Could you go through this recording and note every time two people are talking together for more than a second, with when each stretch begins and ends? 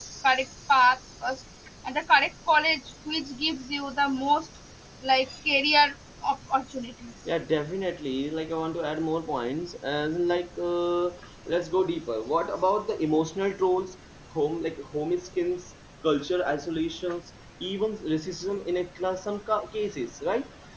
none

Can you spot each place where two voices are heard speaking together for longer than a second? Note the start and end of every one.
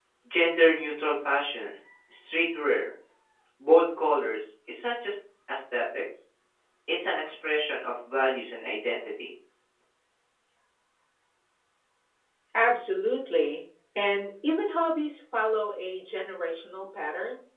none

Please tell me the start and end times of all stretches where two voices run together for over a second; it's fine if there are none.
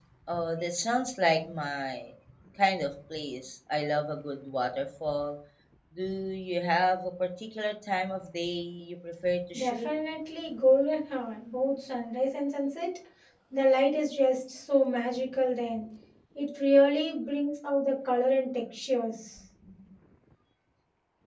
none

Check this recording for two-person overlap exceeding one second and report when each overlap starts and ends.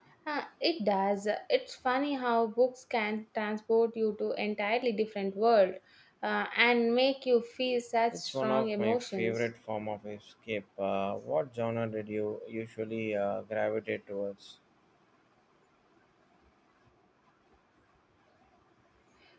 8.1-9.4

